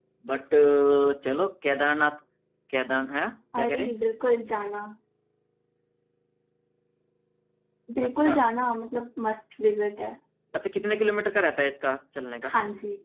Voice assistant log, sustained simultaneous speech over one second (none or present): none